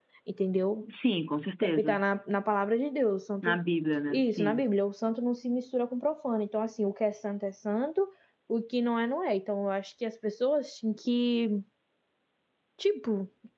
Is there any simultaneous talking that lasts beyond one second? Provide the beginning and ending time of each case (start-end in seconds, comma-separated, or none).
none